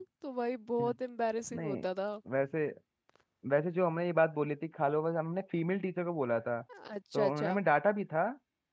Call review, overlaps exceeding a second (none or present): none